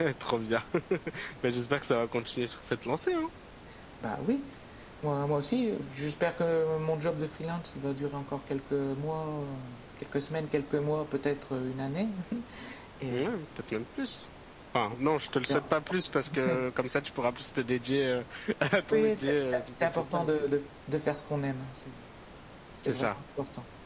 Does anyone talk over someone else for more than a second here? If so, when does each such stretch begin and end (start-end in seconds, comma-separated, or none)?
18.9-20.5